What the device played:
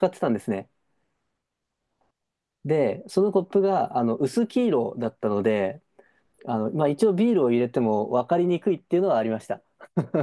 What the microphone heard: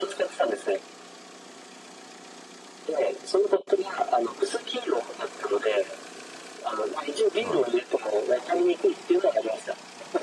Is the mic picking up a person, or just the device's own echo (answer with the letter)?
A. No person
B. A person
B